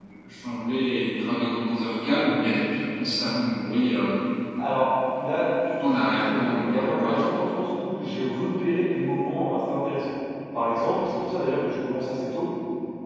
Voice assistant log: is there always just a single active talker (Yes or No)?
No